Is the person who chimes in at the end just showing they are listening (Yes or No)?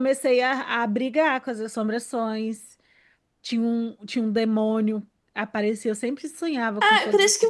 No